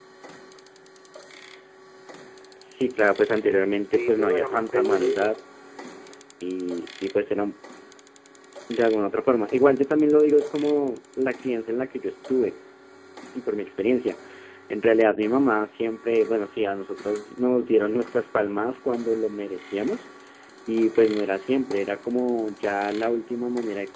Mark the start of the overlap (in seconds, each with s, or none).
3.9 s